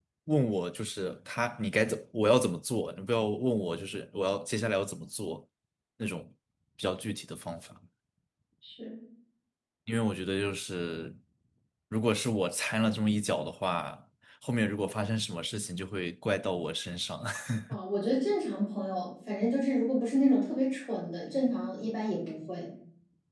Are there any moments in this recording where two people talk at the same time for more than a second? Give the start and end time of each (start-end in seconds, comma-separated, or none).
none